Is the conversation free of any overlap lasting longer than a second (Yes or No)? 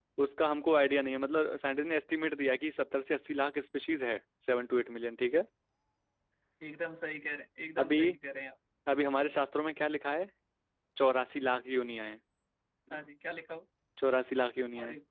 Yes